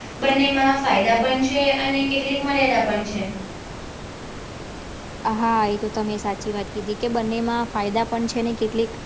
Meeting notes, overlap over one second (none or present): none